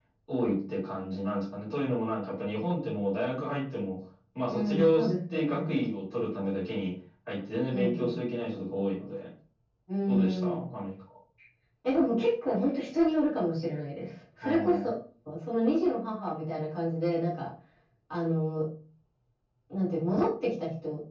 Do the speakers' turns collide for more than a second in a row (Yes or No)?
Yes